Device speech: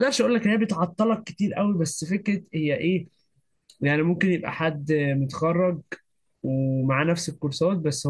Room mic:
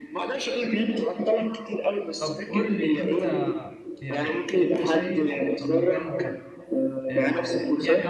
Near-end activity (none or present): present